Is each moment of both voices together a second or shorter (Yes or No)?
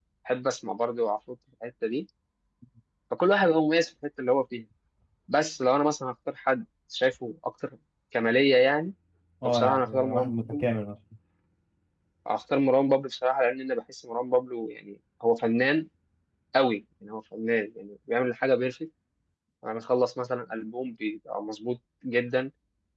No